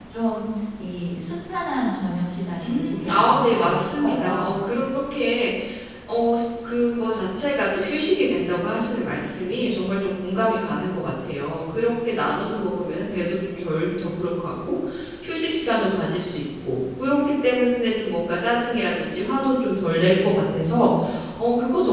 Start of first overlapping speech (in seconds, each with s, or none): 2.6 s